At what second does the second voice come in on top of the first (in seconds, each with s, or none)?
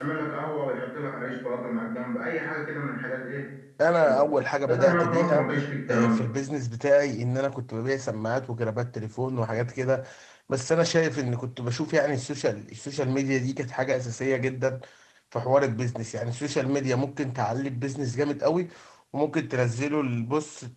3.9 s